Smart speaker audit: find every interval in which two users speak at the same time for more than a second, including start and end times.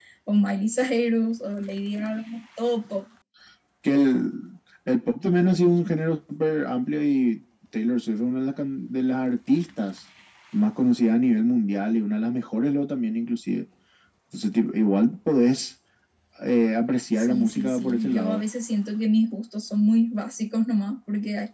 17.1-18.4

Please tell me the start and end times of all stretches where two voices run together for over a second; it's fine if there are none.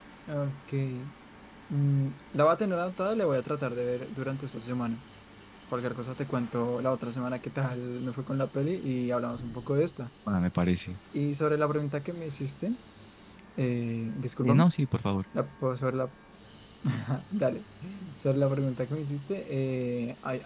none

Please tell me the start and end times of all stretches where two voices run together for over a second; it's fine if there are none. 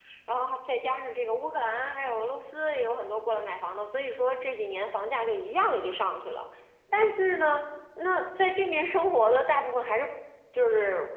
none

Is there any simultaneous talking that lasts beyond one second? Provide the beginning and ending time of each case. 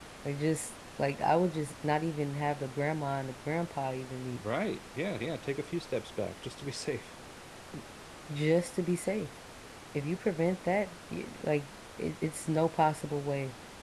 none

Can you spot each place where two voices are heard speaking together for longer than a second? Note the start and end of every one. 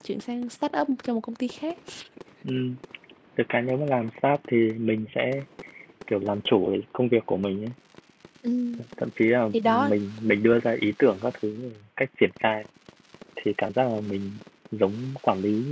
none

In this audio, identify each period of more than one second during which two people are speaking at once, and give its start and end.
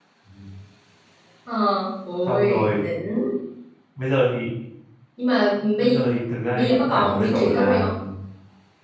6.5-7.9

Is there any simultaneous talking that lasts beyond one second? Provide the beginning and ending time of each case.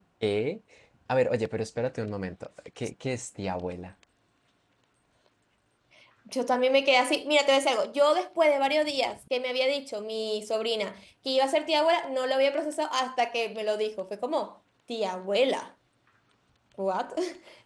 none

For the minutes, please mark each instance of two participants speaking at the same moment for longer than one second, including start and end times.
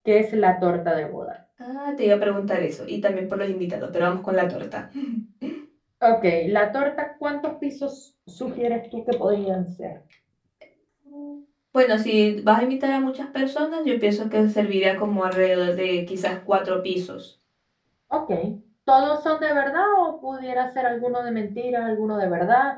none

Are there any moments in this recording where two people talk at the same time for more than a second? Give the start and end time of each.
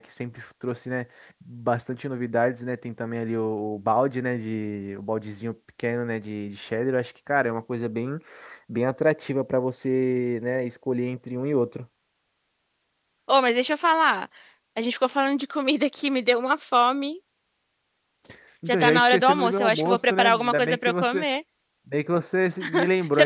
18.7-21.2

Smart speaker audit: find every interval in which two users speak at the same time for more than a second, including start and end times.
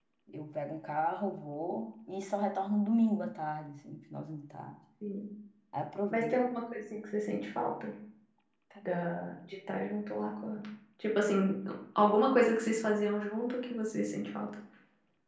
none

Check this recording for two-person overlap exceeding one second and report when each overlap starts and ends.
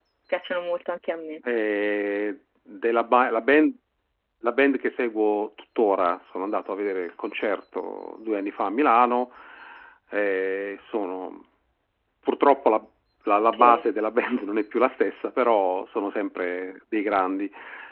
none

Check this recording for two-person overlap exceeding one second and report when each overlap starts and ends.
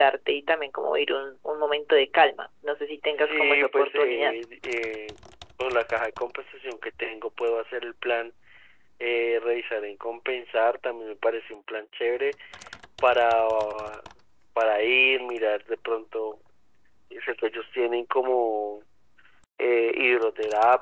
3.1-4.4

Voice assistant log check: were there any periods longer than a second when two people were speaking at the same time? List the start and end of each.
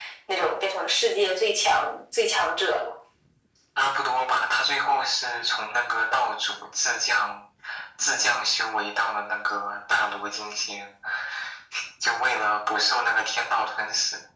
none

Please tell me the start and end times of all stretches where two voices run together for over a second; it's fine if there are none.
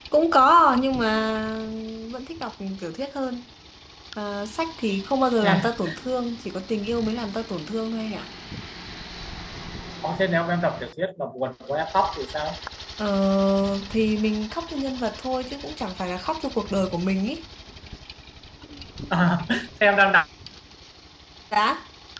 none

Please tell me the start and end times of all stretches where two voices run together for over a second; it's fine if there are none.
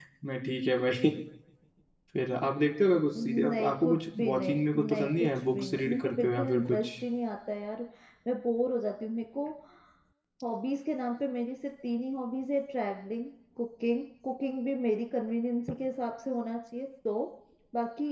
3.2-6.9

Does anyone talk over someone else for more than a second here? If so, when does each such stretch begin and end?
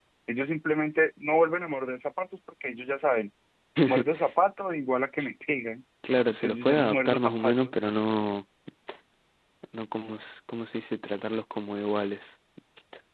6.3-7.7

